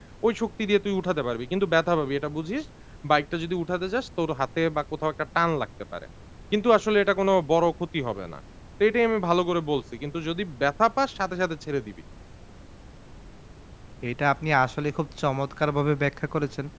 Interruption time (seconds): none

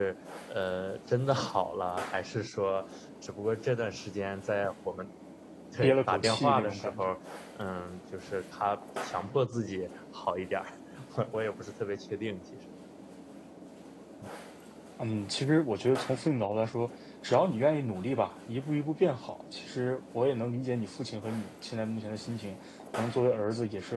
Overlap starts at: 5.8 s

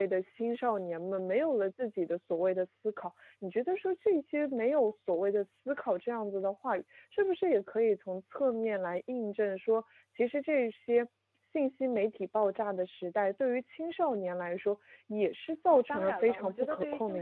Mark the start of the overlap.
15.7 s

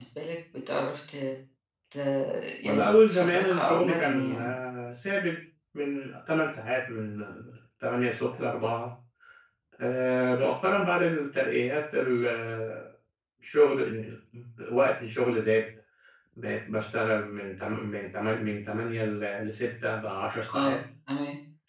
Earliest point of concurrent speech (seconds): 2.6 s

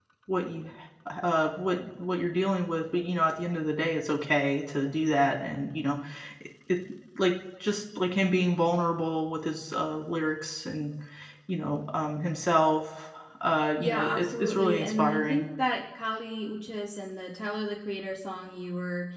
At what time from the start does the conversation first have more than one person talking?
13.8 s

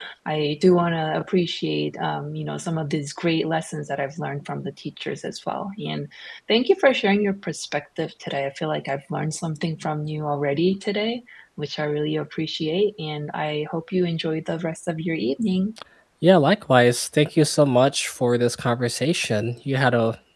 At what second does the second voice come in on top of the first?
none

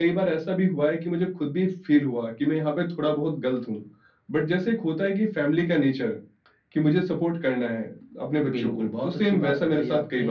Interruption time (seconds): 8.4 s

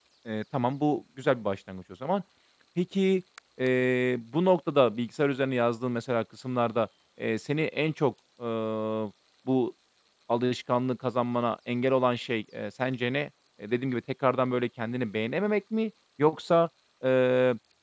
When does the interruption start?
none

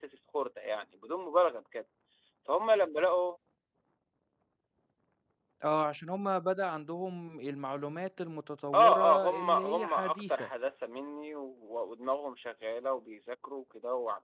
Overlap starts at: 8.7 s

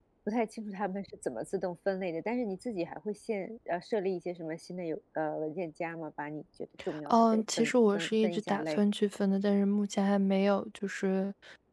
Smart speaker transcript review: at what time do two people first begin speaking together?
6.9 s

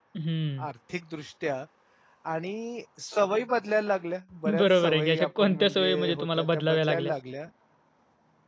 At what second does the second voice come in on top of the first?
4.5 s

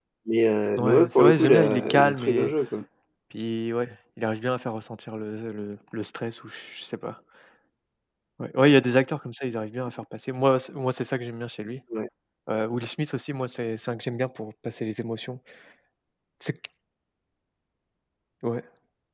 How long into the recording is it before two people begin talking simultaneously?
0.8 s

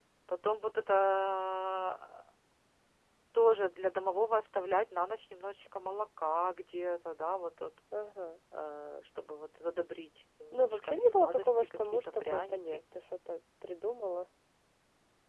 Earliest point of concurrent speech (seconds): 10.5 s

